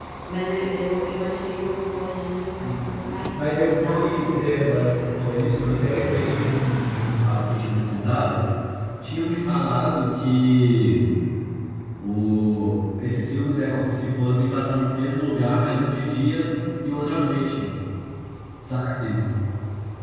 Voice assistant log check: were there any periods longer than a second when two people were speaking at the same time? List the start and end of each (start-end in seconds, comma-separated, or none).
3.3-5.3